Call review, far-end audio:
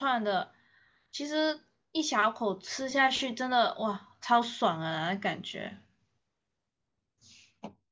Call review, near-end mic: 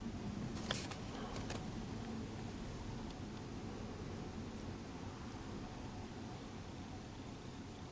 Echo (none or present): none